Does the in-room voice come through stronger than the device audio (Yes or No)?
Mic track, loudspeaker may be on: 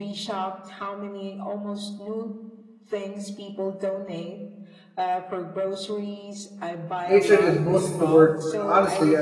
Yes